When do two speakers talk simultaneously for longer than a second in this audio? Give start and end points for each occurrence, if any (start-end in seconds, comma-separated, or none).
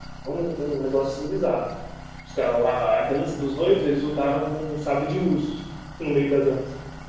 none